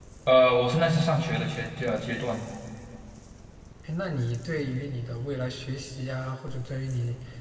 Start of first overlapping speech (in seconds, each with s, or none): none